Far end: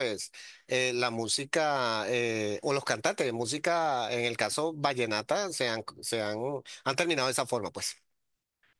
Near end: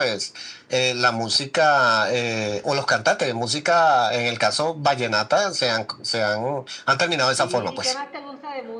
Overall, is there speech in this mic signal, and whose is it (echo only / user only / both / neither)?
both